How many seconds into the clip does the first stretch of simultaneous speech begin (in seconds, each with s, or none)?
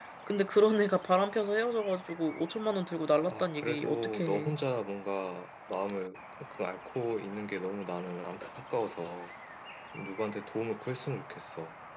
3.3 s